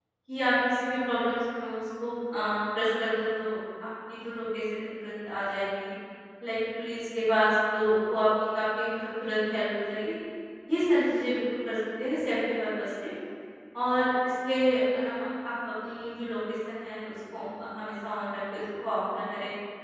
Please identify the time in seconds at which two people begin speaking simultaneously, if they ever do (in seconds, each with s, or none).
none